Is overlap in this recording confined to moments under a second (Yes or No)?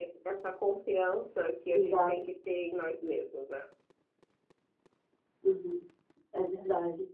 Yes